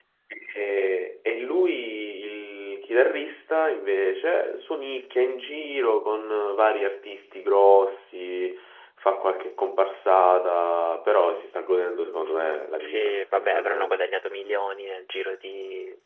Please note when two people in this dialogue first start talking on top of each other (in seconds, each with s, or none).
12.8 s